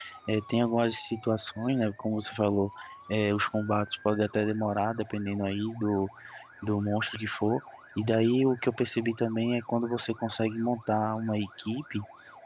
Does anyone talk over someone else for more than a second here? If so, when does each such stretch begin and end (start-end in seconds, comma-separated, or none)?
none